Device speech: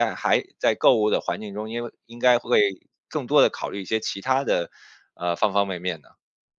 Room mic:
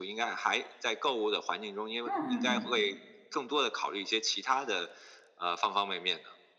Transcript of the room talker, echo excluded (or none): 嗯嗯嗯，